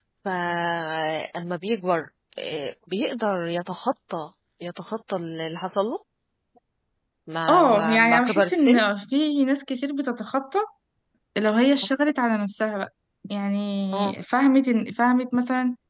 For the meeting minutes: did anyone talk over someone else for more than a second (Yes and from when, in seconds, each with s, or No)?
Yes, from 7.5 s